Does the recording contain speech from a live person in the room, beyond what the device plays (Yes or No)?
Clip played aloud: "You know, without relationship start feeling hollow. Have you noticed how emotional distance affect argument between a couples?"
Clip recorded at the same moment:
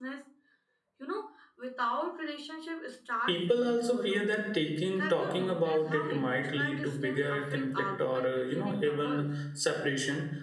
Yes